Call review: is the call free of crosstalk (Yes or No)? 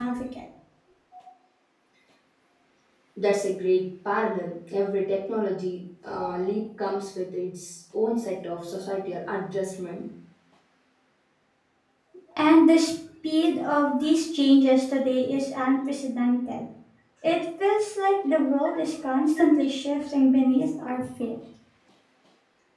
Yes